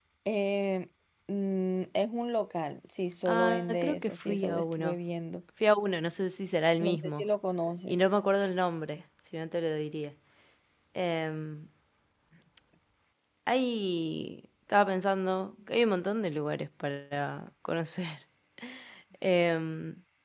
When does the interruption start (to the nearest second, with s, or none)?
3 s